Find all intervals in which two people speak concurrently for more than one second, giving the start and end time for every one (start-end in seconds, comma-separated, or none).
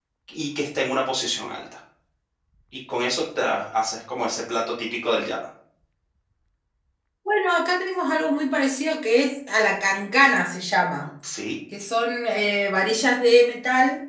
none